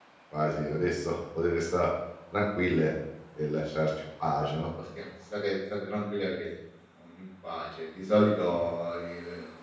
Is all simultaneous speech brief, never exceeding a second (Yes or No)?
Yes